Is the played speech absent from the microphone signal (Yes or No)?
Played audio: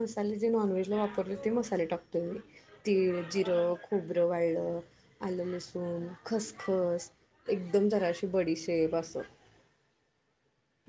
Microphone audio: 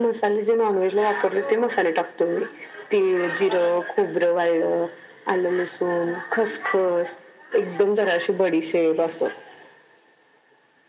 No